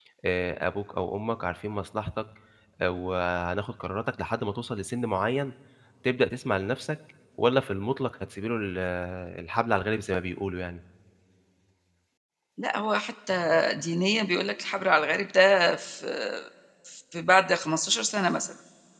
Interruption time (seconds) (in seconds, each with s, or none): none